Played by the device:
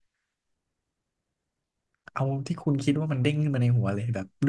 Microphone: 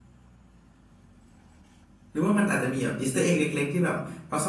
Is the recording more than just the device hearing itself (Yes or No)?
Yes